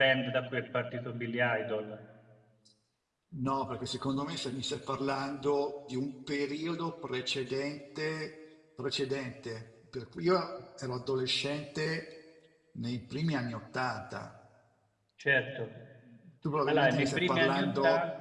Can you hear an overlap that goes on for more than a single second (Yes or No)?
Yes